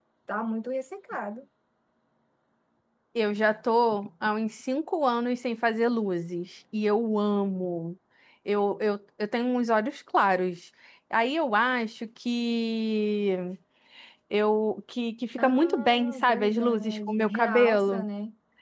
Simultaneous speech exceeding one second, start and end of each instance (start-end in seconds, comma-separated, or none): 15.4-18.0